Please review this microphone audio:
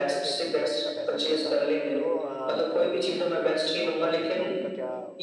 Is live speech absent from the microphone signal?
No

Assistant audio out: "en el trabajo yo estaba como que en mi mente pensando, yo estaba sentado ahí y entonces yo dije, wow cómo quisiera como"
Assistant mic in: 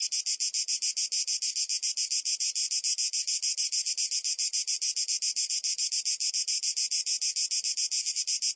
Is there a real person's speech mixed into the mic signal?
No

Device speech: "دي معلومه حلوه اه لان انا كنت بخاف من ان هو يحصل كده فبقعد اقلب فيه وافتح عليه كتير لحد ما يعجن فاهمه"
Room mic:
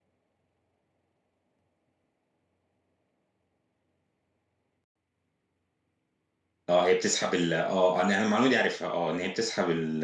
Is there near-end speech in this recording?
Yes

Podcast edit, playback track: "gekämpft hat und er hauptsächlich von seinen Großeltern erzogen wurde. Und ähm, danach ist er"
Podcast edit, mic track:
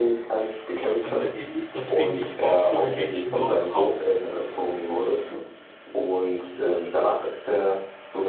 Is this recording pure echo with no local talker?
No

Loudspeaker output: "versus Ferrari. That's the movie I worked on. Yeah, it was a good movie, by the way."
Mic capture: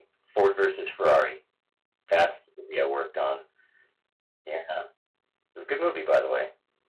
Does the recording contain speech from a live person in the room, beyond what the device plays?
No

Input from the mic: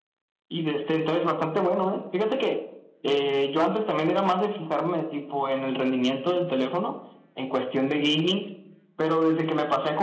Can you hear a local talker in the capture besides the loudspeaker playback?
No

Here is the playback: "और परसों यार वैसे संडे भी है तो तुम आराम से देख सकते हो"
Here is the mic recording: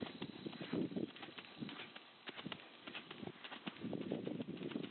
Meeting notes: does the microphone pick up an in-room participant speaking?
No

